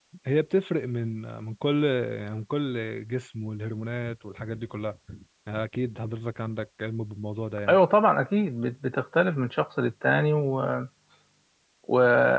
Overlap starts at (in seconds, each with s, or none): none